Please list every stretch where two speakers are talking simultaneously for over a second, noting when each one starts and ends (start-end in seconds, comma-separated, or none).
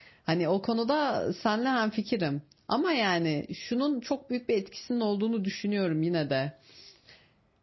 none